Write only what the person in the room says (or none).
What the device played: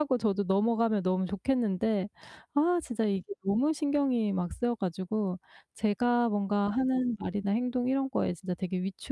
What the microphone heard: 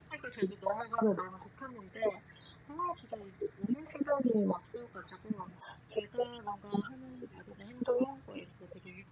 none